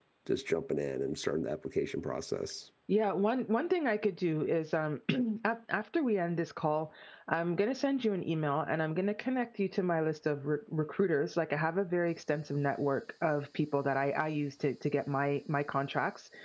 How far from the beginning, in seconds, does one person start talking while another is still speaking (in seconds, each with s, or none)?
none